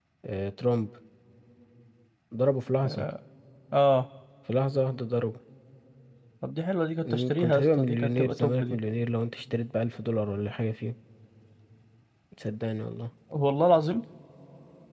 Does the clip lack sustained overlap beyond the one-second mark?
No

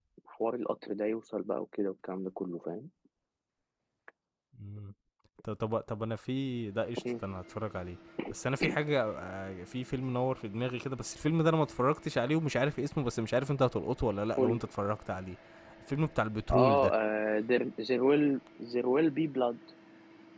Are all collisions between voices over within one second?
Yes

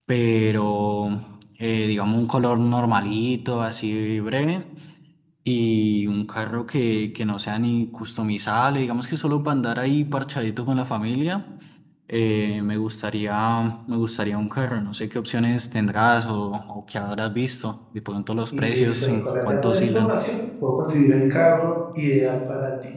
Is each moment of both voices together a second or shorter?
No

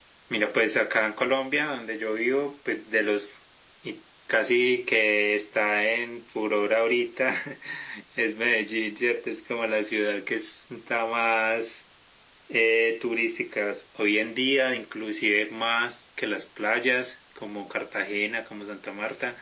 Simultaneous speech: No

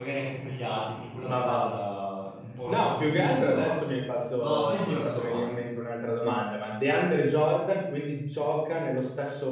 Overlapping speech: Yes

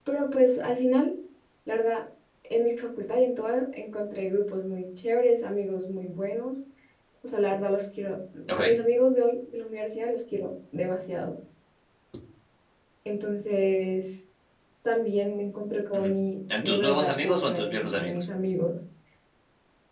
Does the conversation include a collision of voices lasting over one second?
Yes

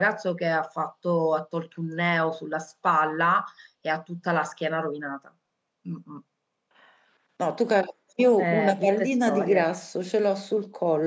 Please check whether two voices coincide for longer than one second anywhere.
Yes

